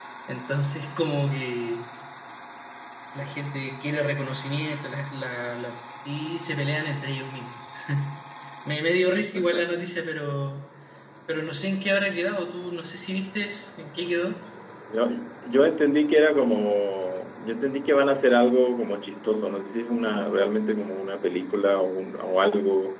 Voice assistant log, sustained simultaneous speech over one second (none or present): none